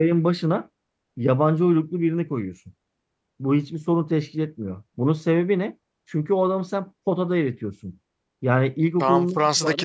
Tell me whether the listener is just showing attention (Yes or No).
No